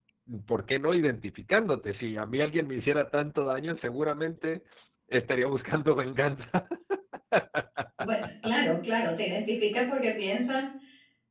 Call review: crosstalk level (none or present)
none